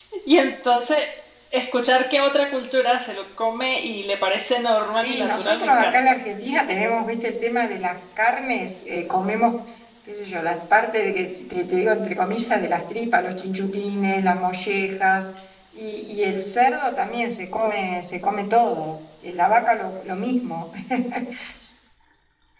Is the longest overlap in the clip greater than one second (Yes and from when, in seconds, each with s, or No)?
Yes, from 4.9 s